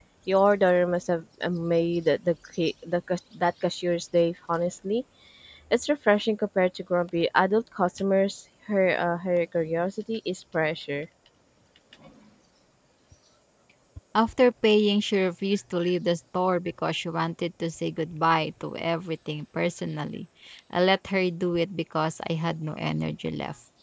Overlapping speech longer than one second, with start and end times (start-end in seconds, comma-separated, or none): none